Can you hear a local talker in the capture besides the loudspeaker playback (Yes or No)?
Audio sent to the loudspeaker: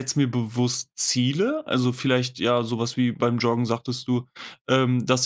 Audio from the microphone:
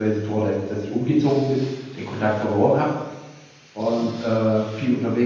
Yes